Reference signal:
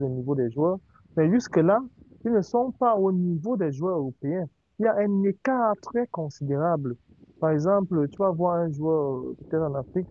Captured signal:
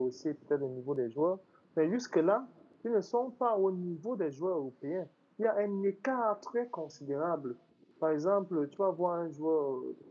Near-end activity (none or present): none